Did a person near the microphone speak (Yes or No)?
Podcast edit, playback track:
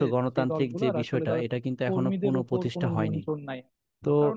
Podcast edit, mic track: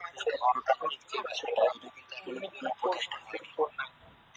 No